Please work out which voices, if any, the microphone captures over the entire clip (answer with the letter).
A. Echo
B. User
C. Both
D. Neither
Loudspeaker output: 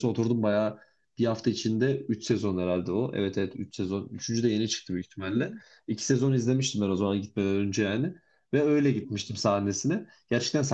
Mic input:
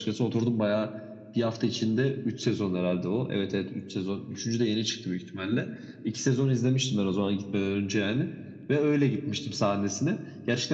A